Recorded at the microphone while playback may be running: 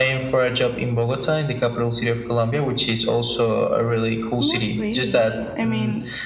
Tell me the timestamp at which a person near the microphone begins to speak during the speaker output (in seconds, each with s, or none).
4.4 s